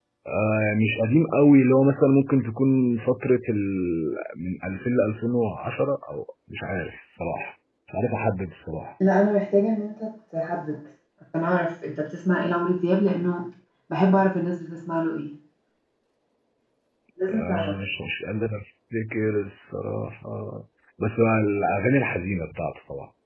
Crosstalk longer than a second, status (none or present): none